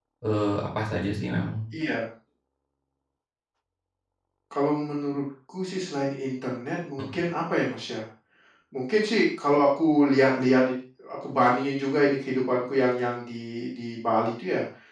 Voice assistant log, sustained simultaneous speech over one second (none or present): none